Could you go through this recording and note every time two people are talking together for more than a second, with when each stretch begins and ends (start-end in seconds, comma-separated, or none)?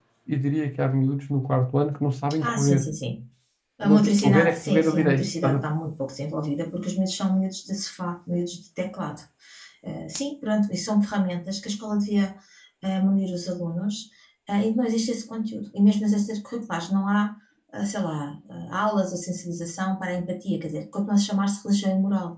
3.8-5.6